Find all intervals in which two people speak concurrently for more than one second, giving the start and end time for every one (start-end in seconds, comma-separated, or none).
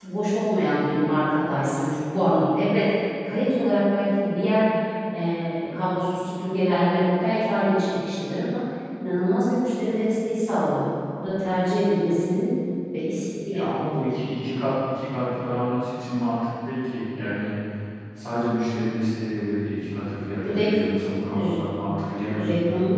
none